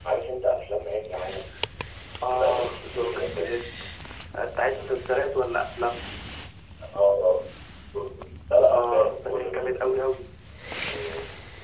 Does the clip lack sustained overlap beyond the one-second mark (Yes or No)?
No